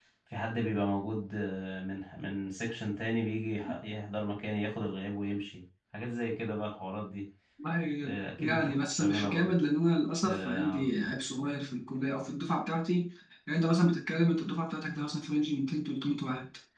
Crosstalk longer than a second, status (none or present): present